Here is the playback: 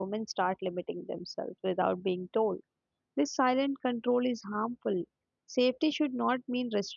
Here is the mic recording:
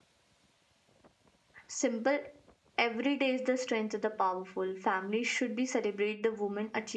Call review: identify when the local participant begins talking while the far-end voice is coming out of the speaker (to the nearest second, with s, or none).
2 s